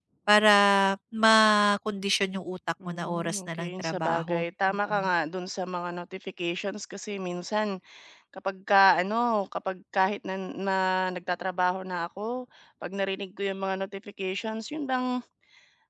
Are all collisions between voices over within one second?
No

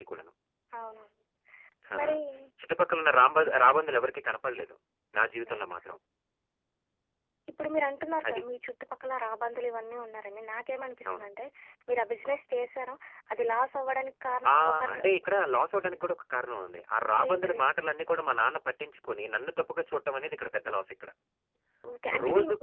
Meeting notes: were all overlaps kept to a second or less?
Yes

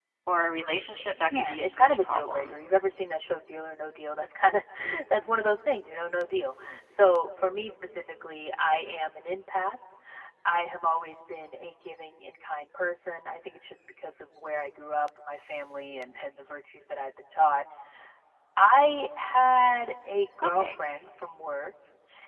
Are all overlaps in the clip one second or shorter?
No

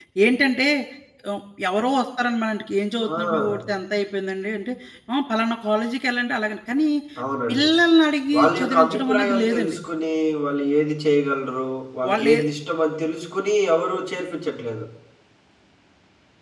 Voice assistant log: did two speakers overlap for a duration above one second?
Yes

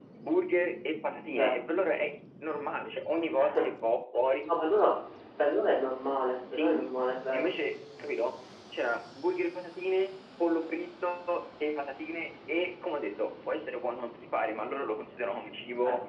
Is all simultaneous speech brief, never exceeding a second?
Yes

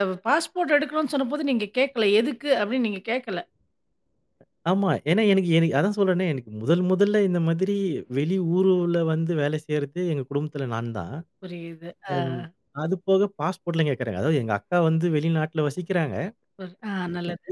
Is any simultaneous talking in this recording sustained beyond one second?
No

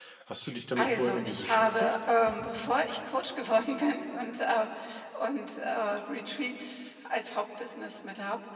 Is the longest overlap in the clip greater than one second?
Yes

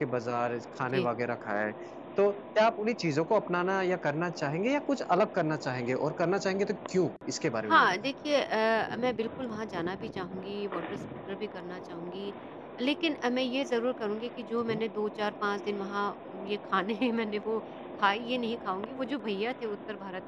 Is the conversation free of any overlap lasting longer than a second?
Yes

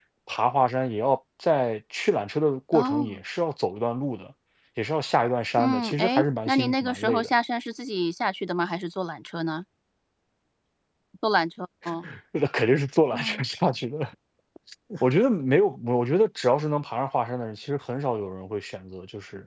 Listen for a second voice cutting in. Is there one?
Yes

